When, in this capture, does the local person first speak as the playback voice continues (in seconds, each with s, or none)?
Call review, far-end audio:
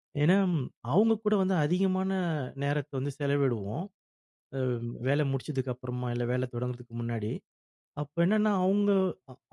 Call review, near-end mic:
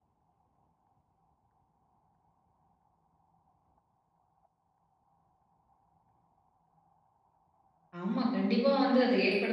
8.0 s